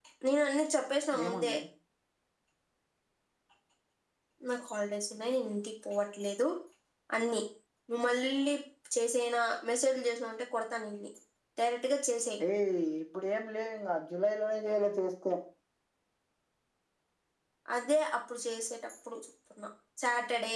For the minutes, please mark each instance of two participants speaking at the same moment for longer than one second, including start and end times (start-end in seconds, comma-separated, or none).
none